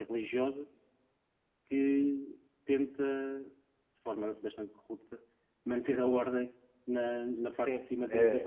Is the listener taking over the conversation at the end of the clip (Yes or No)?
Yes